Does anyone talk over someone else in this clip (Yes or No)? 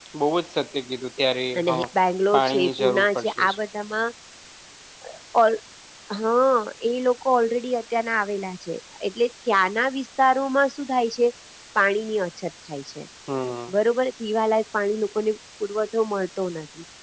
Yes